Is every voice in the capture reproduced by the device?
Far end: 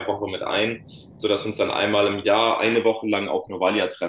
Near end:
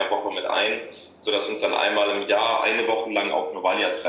Yes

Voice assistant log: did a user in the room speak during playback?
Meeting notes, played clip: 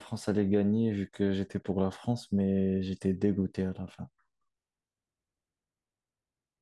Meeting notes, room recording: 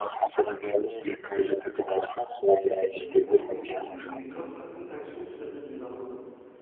Yes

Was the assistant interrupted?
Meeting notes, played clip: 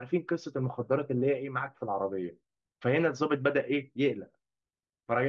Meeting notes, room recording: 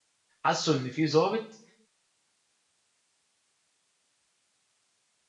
Yes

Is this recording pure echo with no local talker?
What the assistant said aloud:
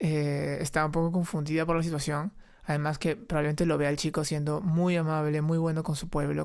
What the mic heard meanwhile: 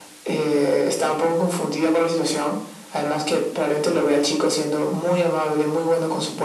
Yes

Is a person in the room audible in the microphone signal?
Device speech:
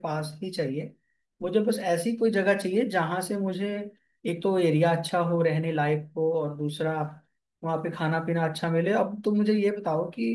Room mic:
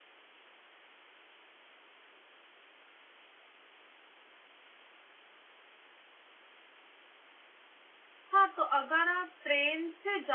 Yes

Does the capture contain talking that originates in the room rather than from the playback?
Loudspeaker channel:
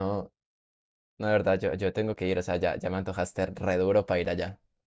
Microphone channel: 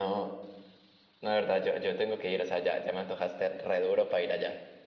No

